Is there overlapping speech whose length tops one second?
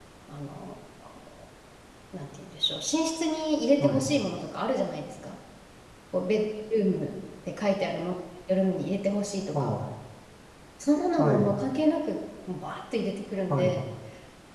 No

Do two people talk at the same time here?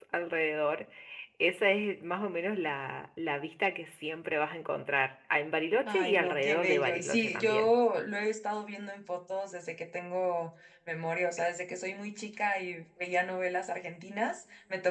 Yes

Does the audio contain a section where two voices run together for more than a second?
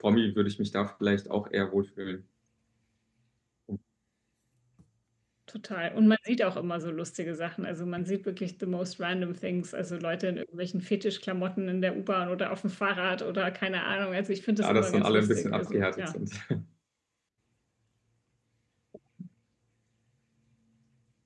Yes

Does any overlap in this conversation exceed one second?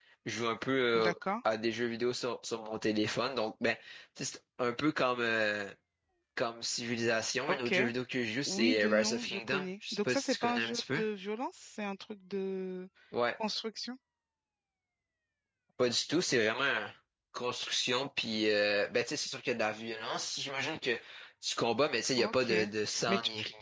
Yes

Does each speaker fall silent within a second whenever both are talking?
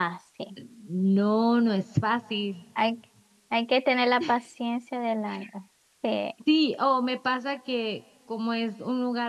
Yes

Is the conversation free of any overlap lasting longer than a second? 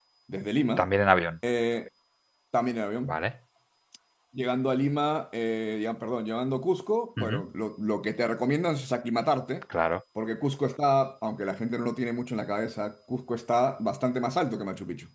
Yes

